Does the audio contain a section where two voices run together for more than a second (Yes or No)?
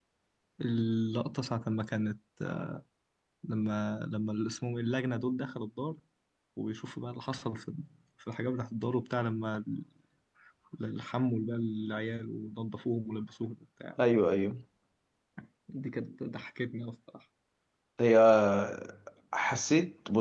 No